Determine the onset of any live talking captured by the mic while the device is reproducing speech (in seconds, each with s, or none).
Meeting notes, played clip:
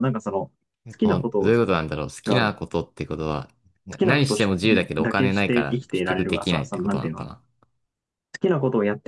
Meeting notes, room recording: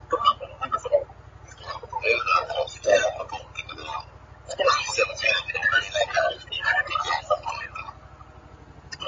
none